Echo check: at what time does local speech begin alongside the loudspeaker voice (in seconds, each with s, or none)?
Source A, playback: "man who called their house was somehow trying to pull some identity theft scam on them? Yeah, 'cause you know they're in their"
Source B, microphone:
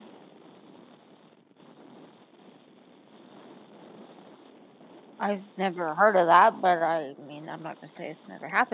5.2 s